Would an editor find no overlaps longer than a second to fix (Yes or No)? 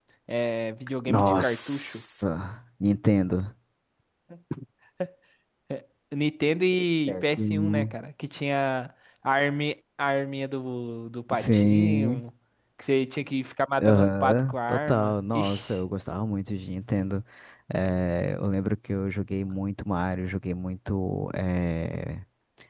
No